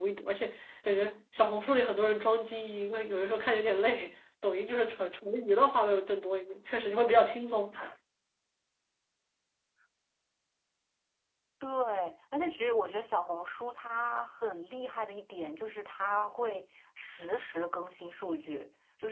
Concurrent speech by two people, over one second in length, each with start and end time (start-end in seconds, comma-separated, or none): none